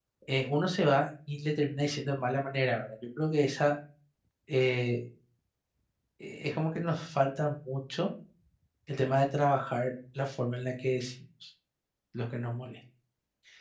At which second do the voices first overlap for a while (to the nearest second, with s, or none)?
none